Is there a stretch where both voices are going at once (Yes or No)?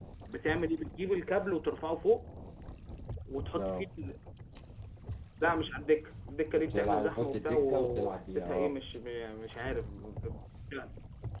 Yes